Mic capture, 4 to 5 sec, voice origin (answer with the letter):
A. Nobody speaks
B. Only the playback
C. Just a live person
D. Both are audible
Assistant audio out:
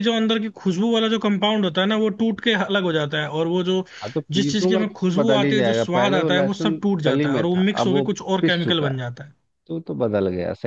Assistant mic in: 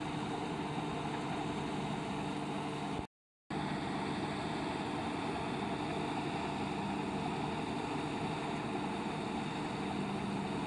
A